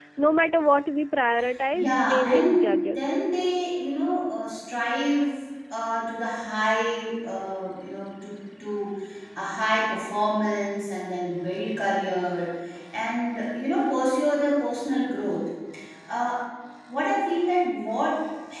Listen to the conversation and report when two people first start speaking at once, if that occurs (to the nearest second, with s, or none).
2 s